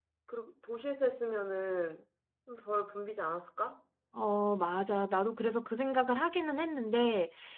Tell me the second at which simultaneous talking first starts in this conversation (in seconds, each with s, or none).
none